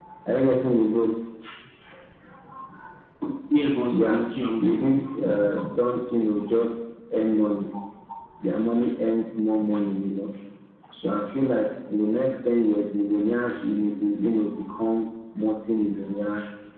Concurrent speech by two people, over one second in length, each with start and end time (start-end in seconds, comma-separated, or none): none